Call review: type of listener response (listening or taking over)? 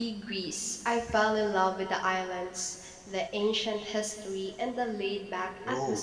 taking over